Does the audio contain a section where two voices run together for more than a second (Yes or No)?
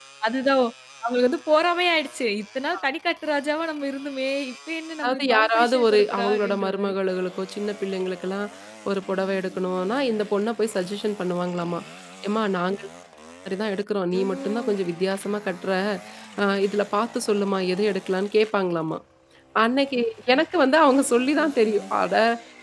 Yes